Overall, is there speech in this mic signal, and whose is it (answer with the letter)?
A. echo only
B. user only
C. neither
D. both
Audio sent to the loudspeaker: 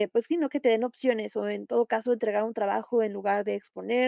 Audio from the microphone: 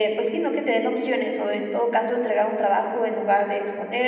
A